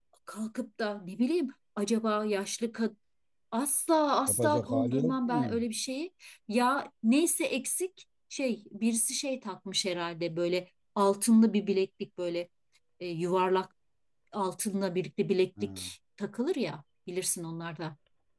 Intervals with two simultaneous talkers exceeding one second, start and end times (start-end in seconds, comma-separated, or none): 4.3-5.6